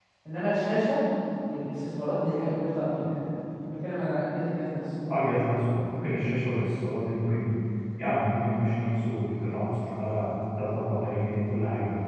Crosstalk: none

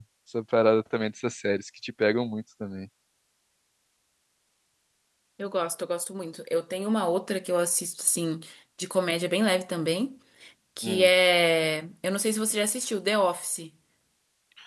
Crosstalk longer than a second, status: none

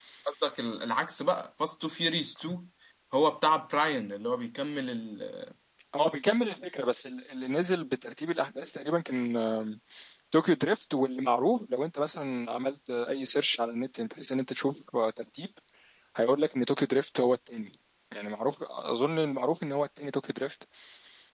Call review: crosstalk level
none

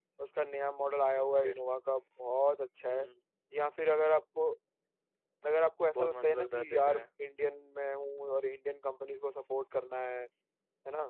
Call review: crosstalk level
present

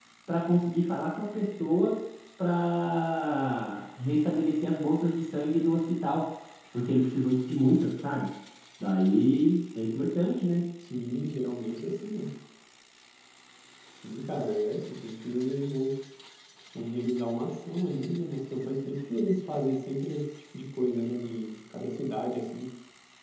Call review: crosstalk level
none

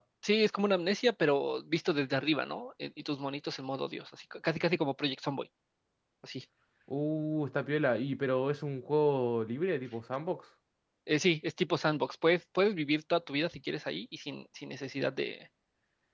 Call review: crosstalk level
none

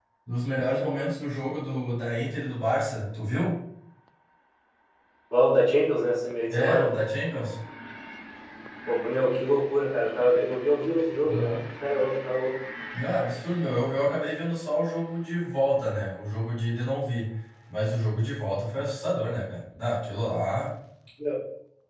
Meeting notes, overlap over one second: none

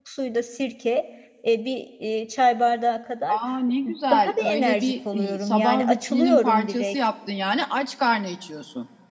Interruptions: present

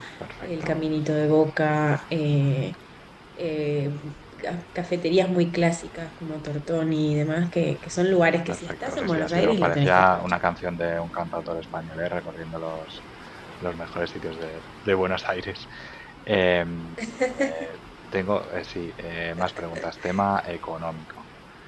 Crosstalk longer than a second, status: present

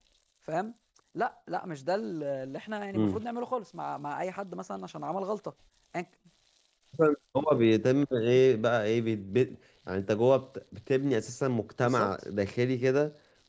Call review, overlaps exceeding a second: none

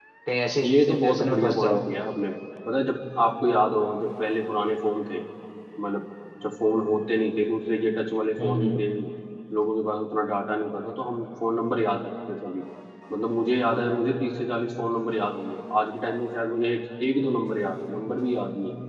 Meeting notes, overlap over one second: present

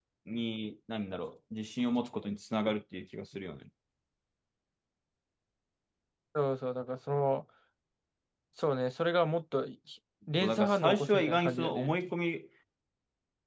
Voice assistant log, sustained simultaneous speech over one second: present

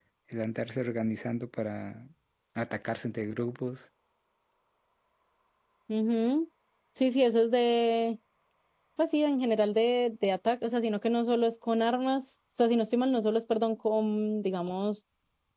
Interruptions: none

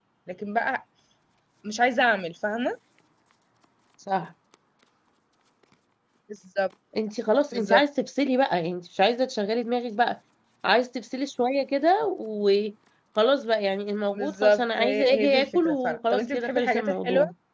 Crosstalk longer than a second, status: present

